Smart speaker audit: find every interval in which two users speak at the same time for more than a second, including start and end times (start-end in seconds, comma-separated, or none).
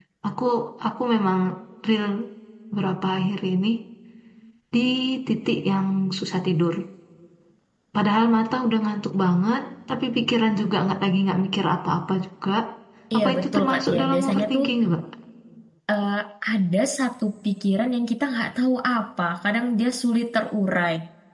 13.2-14.6